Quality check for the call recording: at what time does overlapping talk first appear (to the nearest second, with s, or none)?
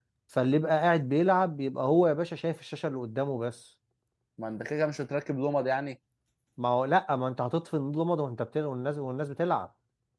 none